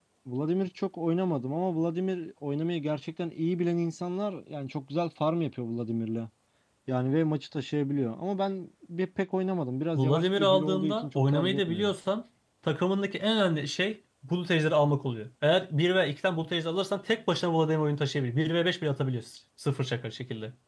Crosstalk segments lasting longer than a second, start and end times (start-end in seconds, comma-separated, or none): 9.9-11.9